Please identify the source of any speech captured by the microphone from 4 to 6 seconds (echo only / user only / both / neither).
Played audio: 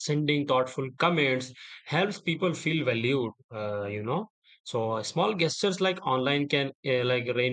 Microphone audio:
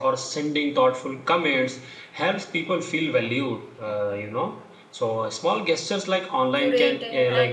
echo only